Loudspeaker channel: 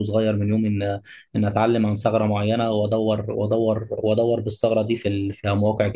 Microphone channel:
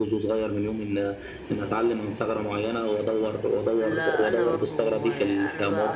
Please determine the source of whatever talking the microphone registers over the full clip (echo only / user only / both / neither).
both